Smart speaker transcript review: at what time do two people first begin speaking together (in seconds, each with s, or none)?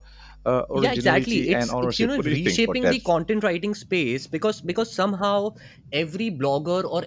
0.8 s